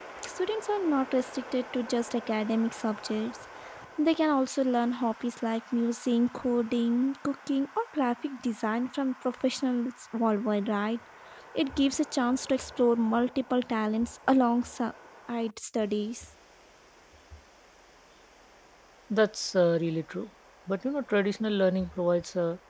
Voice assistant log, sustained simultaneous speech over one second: none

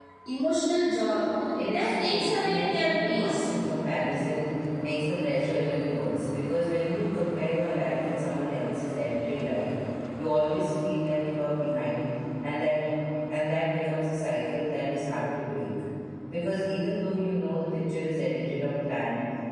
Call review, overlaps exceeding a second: present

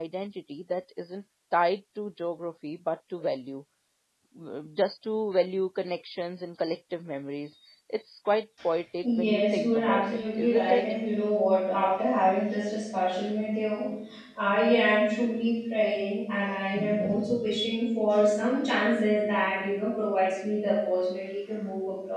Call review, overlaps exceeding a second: present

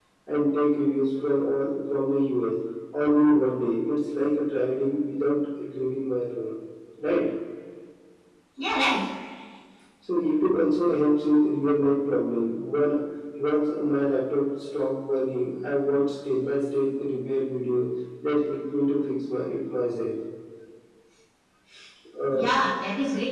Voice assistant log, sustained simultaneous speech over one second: none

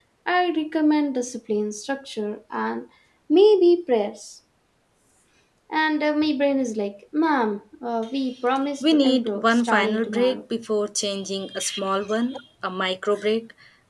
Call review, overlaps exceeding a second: present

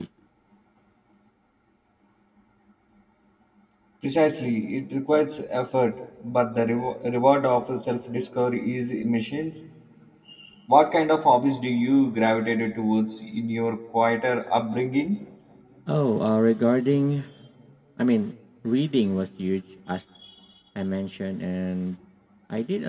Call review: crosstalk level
none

